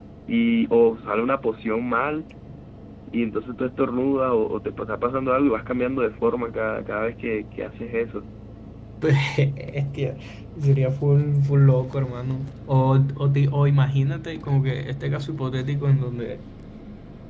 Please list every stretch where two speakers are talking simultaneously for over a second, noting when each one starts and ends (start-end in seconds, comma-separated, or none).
none